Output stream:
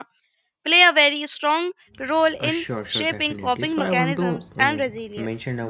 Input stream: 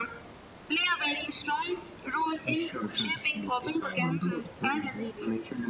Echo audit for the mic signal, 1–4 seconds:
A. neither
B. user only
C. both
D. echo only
D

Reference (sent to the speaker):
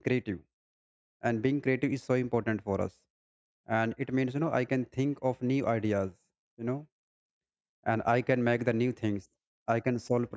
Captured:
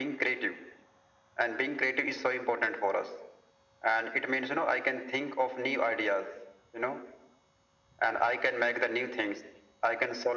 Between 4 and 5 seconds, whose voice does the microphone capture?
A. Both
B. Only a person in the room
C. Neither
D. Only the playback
D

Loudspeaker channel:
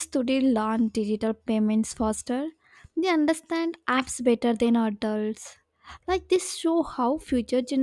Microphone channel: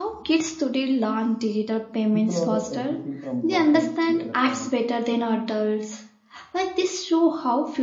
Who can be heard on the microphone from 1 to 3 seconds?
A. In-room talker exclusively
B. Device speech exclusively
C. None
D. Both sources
D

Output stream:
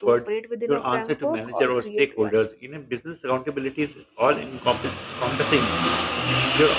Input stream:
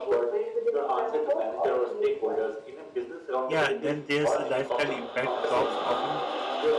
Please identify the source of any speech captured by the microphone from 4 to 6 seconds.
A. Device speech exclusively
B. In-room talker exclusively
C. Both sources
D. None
C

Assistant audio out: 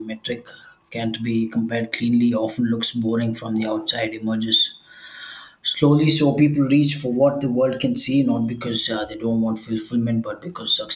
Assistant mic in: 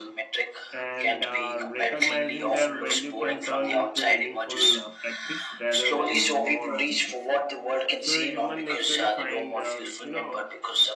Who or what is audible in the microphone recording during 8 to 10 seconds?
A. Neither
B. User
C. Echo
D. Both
D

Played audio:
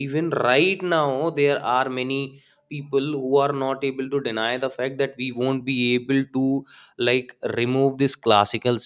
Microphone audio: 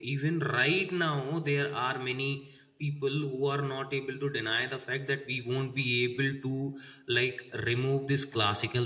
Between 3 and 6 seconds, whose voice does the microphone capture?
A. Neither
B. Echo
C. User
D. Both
B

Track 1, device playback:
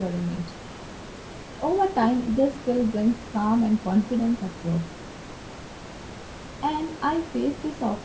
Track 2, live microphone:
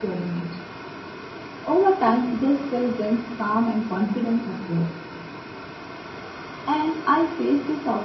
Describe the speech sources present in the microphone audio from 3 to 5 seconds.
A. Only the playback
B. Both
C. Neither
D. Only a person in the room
A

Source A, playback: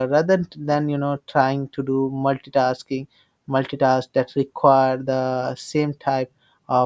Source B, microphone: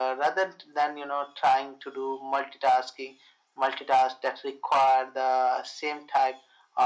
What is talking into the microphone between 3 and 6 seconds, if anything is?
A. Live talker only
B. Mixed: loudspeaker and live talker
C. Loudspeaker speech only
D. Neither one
C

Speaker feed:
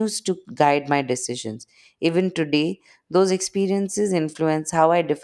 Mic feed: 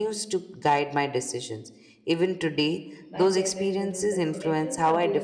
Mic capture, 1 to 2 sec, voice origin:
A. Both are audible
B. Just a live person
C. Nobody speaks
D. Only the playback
D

